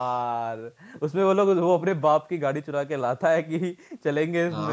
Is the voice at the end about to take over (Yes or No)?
Yes